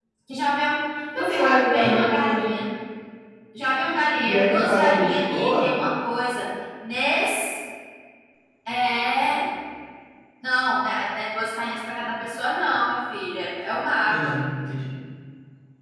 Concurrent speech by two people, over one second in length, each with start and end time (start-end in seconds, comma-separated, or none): 1.2-2.5, 4.2-5.7